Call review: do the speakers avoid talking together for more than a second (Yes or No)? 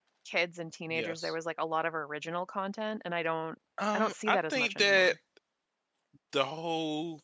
No